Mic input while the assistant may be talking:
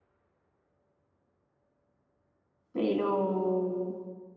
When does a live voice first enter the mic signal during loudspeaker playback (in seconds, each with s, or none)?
2.7 s